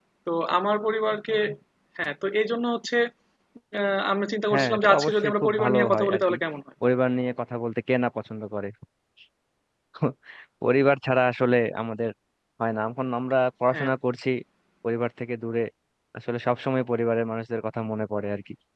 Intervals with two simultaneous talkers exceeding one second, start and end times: 4.5-6.3

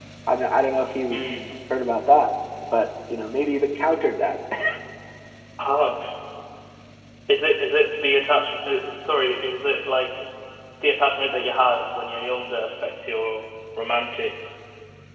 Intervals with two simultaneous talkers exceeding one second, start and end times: none

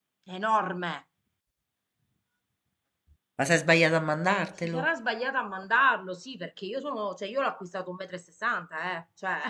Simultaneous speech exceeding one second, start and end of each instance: none

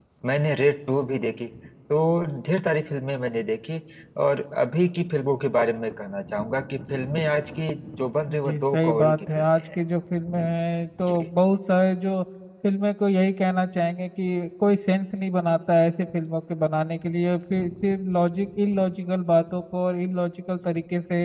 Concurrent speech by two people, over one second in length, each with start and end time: 8.3-9.6

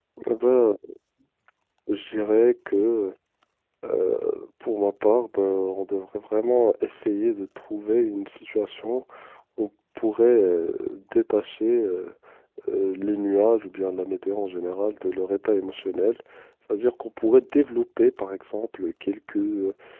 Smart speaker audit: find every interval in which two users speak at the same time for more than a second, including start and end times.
none

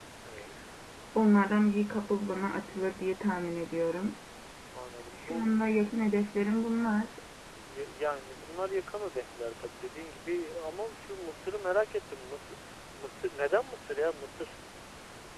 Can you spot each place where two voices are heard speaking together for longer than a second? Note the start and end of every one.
none

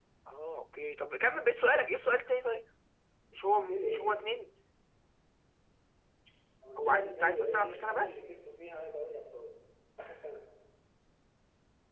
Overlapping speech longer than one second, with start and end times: 6.8-8.2

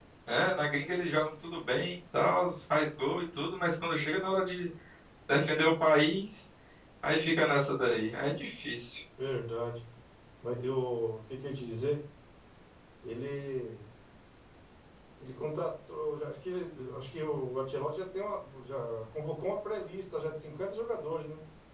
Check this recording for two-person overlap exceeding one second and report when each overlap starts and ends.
none

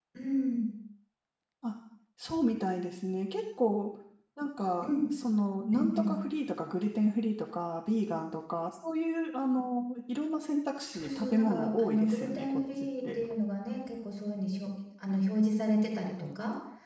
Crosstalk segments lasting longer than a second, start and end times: 10.9-13.2

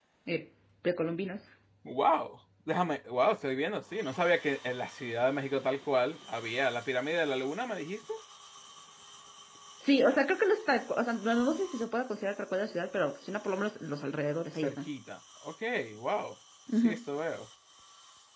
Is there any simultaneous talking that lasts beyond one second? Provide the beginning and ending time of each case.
none

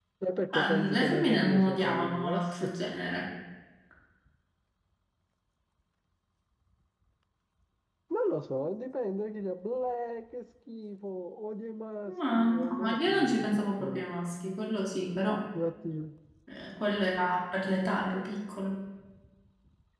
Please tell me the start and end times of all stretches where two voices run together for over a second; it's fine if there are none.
0.5-2.7, 12.3-14.1

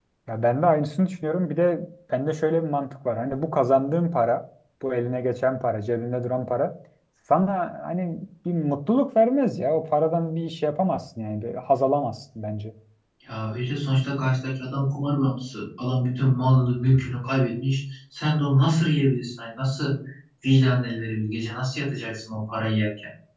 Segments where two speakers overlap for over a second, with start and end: none

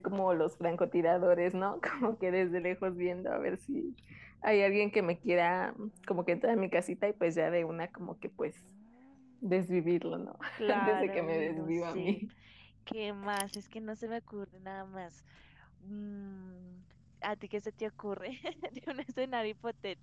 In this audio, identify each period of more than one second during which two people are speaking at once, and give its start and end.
10.6-12.2

